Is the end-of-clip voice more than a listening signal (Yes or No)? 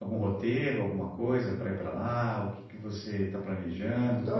Yes